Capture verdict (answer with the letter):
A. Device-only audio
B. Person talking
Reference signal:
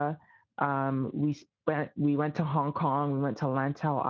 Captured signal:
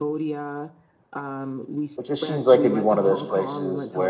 B